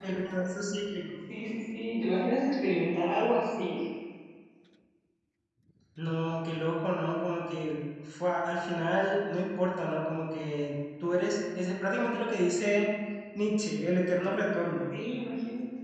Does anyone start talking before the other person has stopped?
No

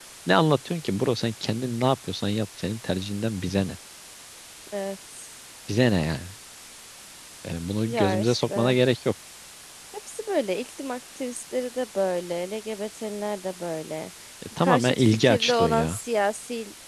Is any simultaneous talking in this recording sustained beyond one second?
Yes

